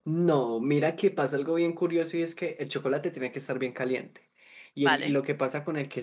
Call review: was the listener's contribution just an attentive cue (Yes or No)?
Yes